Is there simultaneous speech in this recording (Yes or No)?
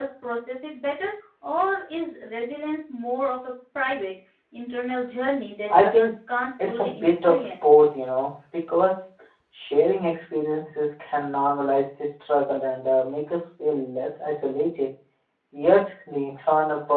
Yes